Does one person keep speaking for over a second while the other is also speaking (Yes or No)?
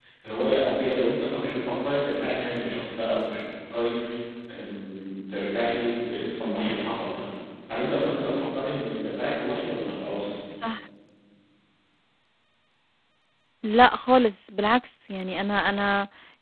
No